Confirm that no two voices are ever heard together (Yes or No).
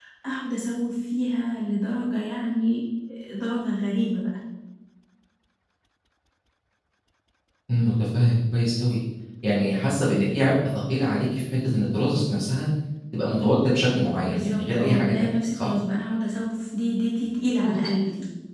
No